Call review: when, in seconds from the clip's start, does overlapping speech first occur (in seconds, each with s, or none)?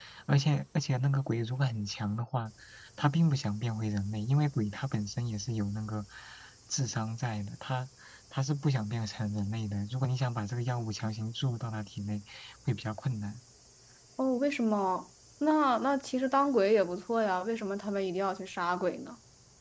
none